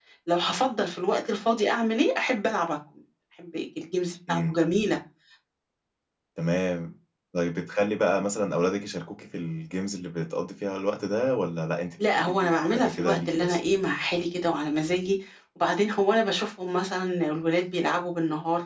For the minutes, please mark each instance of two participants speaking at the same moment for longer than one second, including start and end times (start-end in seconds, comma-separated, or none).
12.1-13.6